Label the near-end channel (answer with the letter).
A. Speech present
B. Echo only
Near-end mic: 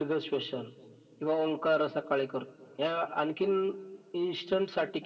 B